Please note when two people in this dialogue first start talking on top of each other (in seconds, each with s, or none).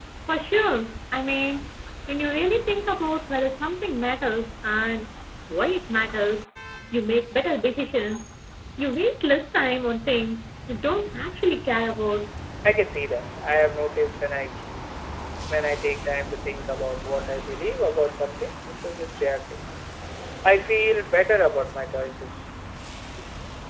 none